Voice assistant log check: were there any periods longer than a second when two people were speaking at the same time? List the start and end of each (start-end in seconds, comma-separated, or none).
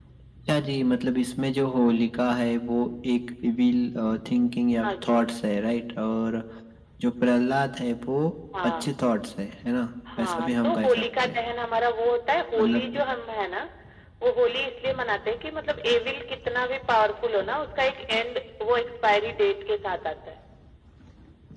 10.2-11.4